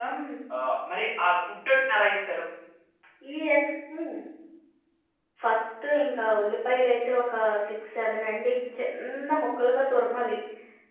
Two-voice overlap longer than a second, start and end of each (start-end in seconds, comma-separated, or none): none